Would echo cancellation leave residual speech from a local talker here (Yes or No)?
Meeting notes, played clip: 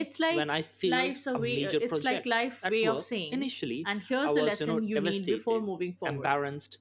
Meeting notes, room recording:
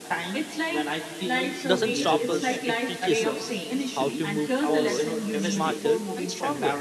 Yes